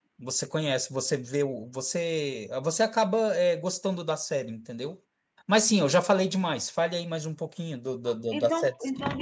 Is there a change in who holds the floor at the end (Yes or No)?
Yes